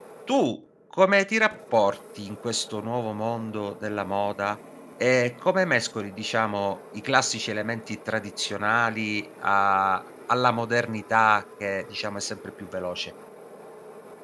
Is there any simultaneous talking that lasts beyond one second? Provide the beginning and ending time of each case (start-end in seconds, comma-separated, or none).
none